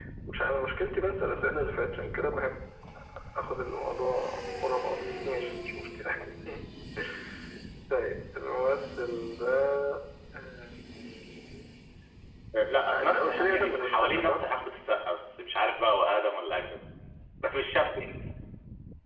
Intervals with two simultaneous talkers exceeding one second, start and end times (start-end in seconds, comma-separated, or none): 12.9-14.4